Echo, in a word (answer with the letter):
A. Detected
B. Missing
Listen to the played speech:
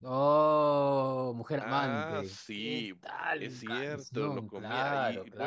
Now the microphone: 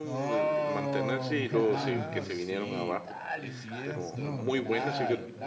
A